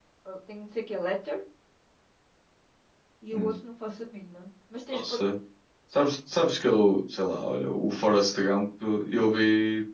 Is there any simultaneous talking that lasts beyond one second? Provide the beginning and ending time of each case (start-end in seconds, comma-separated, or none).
none